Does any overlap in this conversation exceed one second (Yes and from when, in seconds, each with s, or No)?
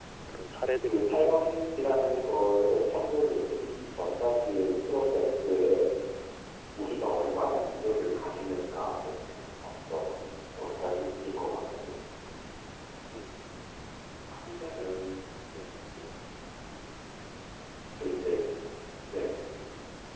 Yes, from 0.9 s